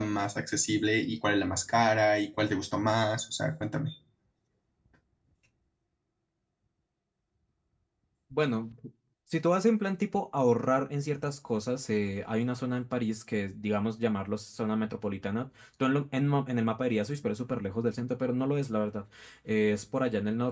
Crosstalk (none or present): none